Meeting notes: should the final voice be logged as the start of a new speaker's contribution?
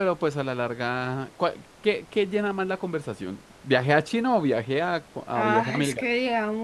Yes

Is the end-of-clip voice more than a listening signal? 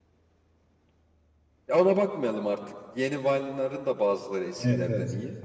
Yes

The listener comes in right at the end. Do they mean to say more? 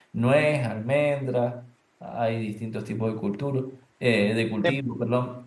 No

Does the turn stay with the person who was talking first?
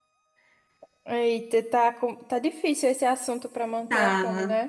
No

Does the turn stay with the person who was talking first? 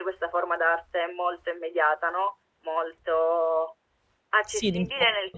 Yes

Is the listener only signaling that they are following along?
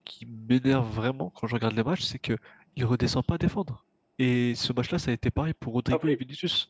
Yes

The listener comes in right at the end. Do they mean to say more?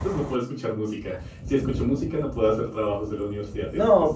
Yes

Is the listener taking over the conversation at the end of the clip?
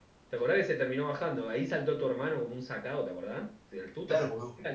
Yes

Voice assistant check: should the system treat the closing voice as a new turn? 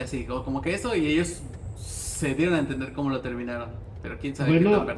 Yes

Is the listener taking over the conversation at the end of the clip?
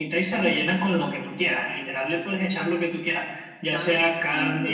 No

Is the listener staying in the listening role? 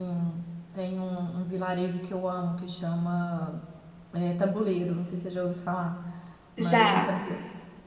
Yes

